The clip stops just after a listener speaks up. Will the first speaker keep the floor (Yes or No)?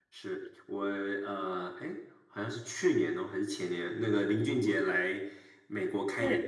Yes